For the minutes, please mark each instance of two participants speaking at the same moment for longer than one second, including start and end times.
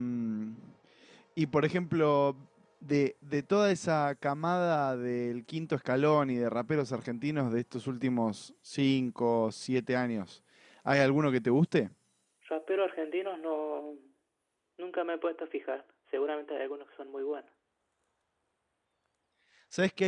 none

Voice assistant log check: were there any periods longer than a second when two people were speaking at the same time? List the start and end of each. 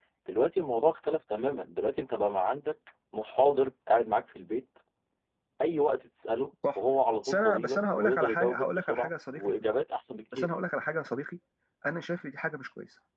7.2-9.4

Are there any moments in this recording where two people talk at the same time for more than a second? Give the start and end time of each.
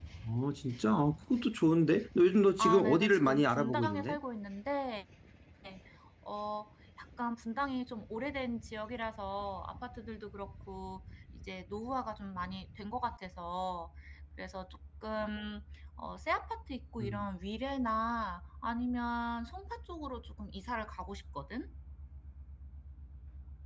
2.6-4.2

